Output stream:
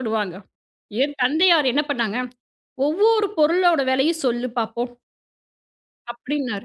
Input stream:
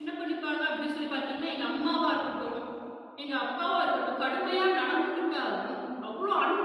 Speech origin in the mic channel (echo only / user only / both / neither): user only